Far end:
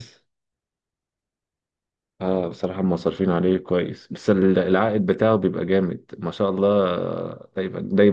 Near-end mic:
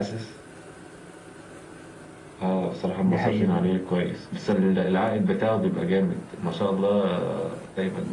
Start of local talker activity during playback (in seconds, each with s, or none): 3.1 s